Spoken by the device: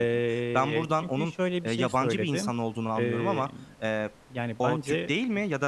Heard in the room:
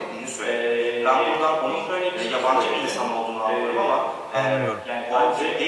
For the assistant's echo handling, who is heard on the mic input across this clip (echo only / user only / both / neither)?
both